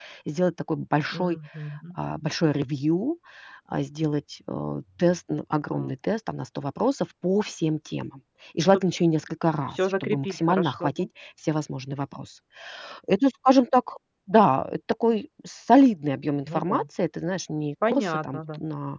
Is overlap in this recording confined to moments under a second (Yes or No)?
No